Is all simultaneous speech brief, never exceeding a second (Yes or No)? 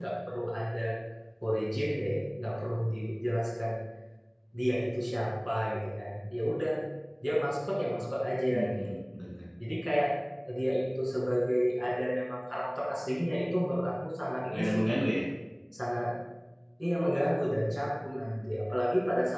Yes